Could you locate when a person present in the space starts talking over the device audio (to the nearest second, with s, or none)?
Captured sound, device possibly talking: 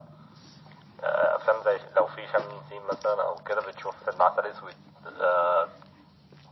none